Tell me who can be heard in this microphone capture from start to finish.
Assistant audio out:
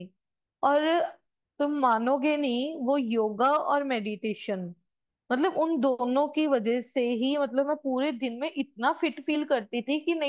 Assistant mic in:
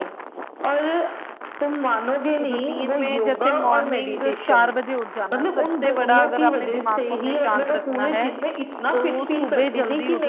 both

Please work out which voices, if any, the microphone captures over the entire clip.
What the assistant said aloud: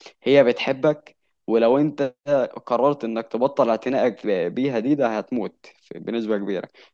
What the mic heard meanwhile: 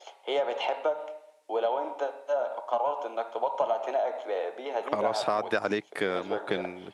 both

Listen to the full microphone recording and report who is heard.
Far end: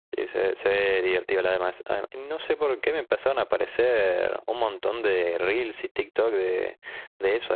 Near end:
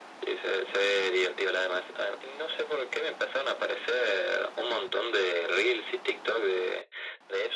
echo only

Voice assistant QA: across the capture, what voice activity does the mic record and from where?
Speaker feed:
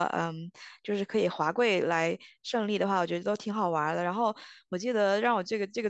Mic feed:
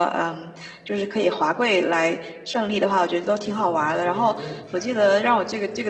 both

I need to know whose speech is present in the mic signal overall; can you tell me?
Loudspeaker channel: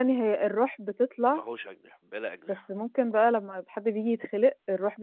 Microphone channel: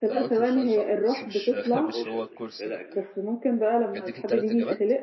both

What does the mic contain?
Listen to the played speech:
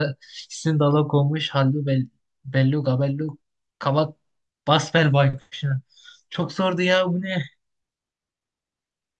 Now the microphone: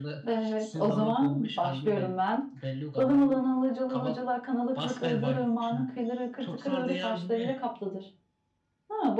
both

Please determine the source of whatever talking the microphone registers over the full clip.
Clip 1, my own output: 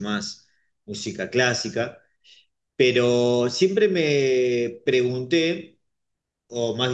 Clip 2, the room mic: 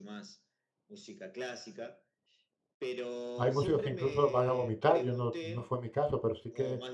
both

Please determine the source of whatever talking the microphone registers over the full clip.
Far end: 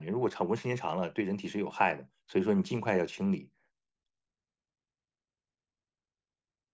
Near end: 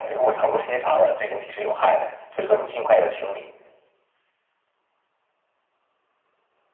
echo only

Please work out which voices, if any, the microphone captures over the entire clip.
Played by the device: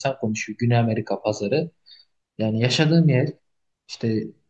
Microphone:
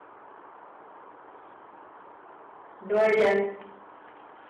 user only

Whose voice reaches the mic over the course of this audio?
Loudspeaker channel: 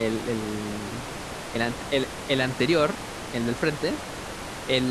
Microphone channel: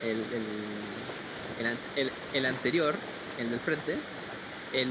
echo only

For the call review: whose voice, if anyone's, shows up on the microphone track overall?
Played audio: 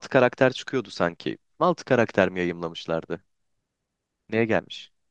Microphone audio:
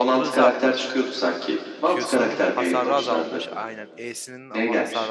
both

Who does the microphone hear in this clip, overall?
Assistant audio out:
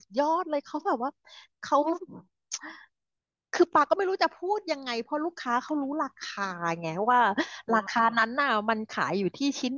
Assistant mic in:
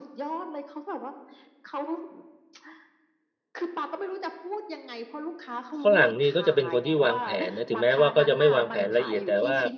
both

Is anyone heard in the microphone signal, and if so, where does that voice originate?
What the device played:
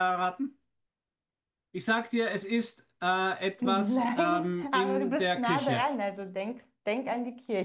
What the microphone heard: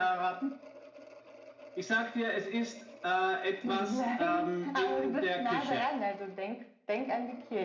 echo only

